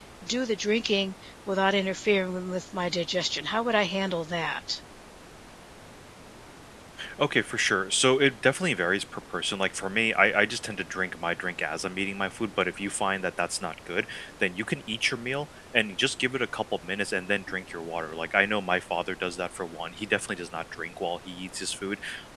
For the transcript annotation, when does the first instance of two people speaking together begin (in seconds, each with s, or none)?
none